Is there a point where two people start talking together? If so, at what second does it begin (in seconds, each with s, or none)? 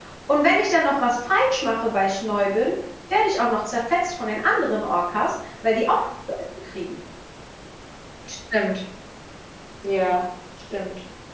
none